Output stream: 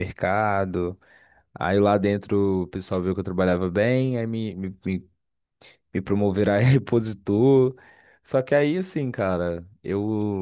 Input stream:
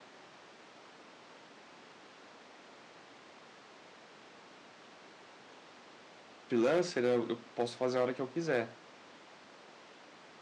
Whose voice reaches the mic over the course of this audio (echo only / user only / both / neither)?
user only